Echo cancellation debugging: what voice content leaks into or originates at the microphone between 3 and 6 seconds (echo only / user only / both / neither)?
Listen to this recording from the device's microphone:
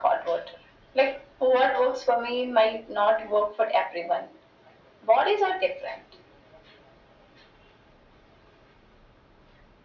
echo only